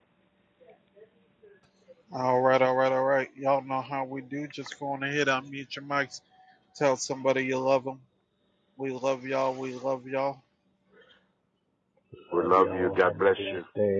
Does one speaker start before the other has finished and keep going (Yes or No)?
Yes